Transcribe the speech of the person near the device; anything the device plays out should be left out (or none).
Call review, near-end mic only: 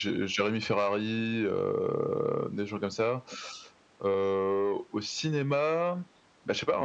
none